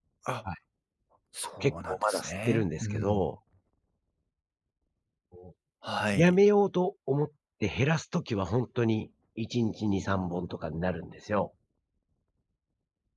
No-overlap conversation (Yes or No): No